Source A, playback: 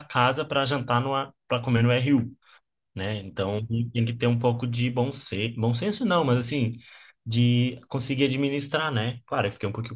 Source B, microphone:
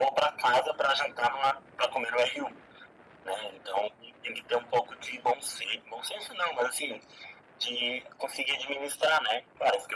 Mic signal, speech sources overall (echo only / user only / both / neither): echo only